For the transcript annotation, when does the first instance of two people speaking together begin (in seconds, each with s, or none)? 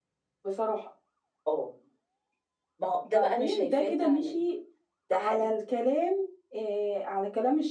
3.1 s